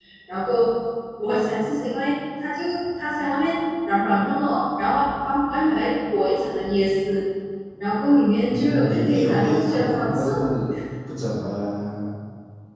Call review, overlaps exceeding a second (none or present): present